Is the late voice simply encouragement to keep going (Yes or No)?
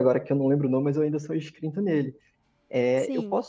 Yes